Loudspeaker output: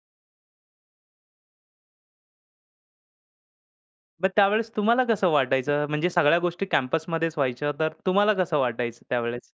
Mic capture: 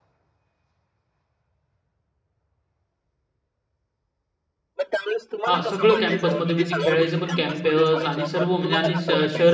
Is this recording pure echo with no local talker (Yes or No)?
No